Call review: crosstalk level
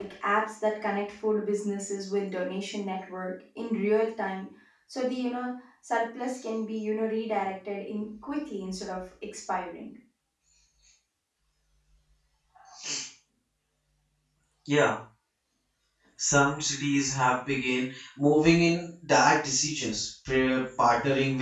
none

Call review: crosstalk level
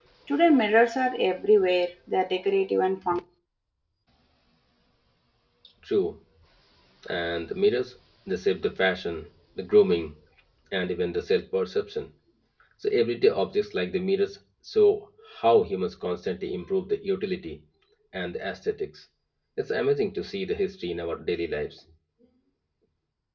none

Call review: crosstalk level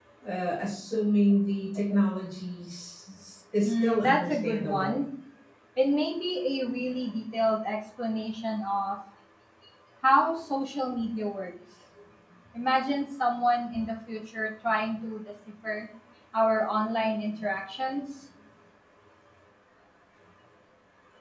present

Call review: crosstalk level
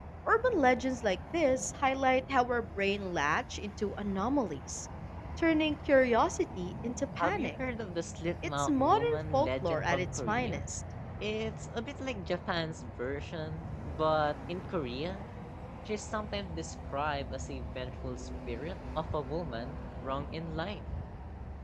present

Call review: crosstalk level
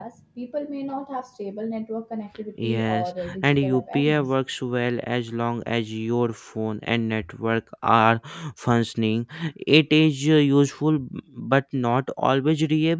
present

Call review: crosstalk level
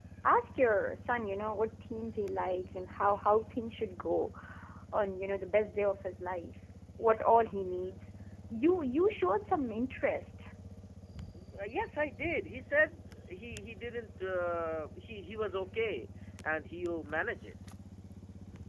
none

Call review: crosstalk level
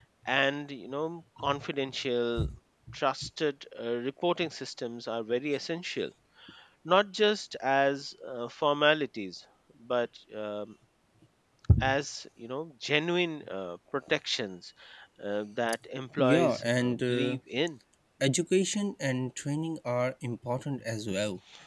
present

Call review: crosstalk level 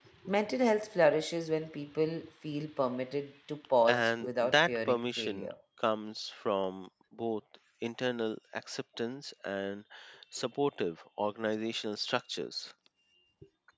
present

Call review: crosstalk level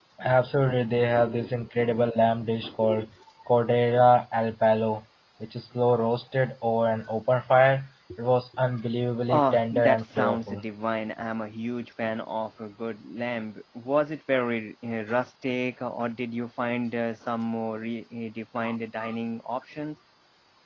present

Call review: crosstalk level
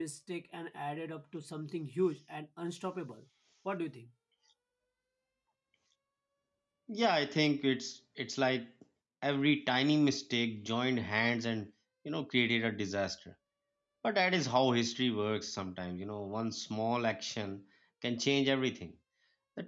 none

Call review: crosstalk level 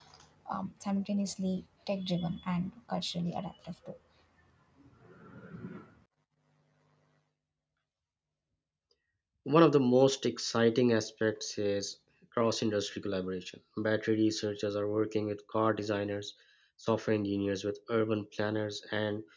none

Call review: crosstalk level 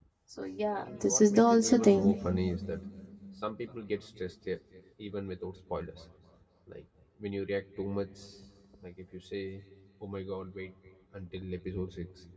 present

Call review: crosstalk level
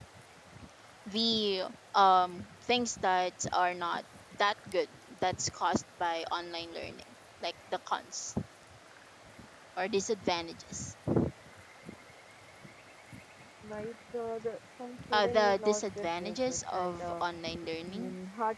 present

